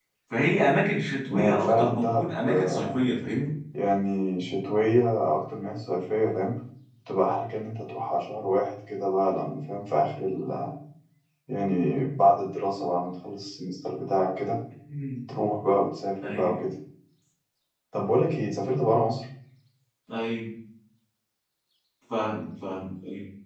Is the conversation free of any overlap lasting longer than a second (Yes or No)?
No